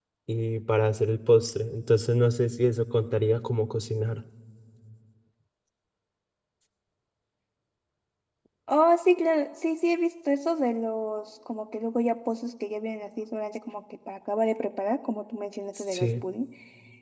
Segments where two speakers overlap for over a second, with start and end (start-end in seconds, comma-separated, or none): none